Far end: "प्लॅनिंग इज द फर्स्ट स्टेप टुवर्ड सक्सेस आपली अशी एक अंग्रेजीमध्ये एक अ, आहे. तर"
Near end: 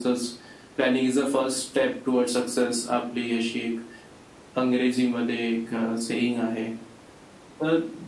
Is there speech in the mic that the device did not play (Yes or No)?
No